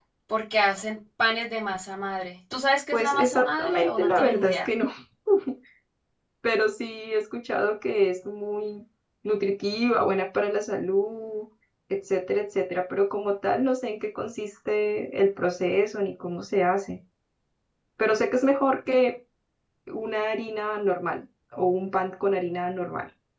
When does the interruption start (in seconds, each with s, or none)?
2.9 s